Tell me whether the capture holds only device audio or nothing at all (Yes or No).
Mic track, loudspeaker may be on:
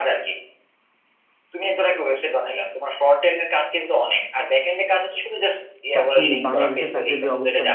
No